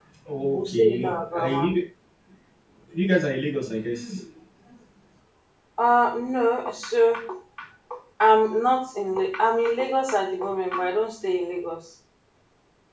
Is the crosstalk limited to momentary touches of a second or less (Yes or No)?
No